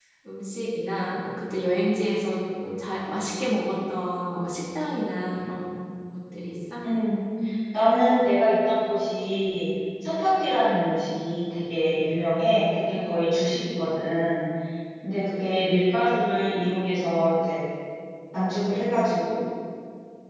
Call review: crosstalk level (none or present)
none